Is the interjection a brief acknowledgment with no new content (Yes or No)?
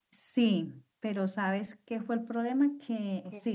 Yes